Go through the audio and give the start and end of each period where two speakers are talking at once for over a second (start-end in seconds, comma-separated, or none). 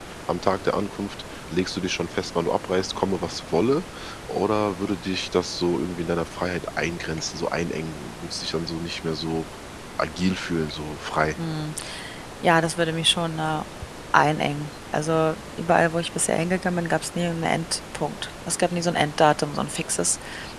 none